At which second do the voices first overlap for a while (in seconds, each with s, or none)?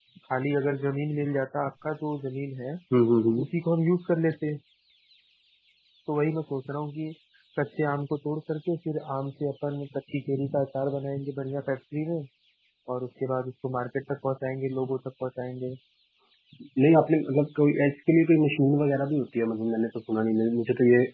none